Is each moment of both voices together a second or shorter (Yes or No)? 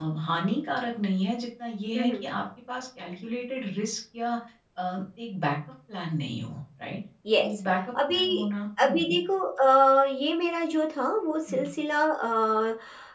Yes